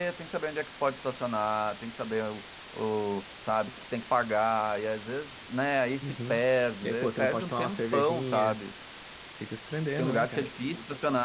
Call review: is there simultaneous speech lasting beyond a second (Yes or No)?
Yes